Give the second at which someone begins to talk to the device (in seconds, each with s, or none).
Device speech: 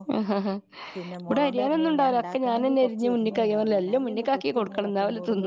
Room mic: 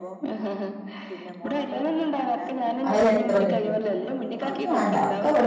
2.9 s